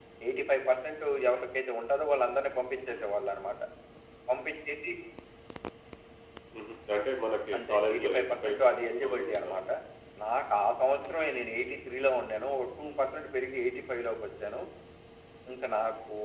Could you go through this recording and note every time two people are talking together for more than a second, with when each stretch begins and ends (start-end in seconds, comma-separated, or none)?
7.5-9.6